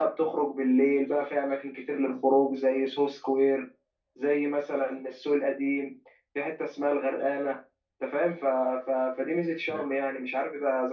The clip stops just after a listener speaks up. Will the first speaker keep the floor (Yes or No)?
Yes